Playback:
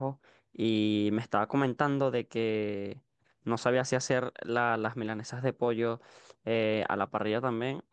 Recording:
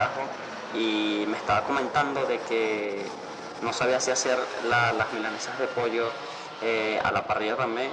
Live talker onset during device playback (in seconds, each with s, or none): none